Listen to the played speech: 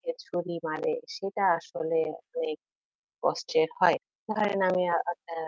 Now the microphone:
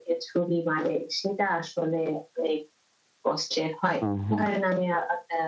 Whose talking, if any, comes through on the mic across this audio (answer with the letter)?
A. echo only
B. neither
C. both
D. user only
C